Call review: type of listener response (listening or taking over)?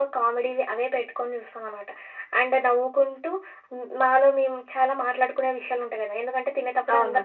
listening